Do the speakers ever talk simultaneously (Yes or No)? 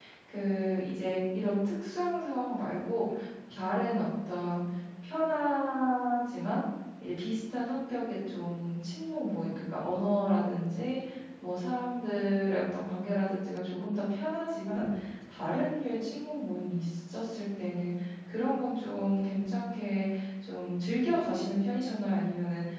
No